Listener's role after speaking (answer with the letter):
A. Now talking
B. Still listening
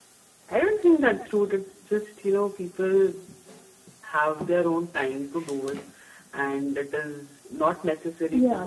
A